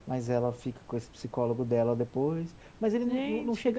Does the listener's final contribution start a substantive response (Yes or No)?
No